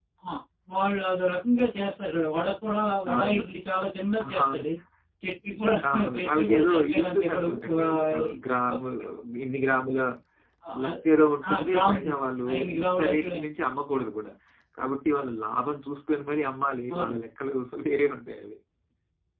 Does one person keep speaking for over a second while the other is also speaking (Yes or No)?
Yes